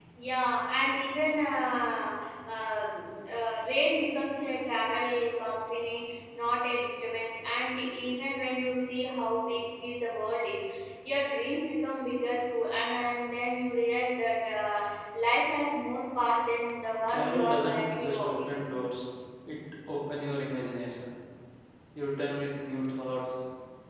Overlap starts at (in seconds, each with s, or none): 17.1 s